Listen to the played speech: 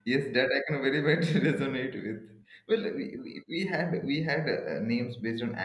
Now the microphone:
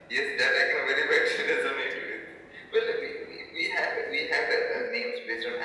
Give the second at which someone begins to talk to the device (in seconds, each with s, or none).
none